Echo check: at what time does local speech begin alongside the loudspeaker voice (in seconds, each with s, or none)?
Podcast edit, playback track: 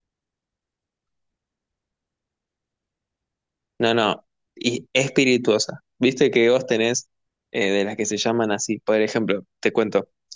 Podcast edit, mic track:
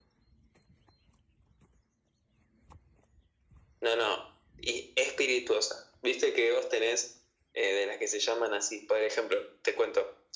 none